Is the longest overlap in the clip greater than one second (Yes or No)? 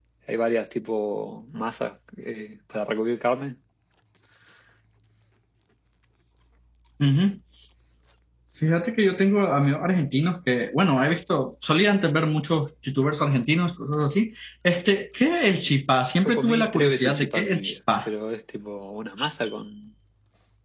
Yes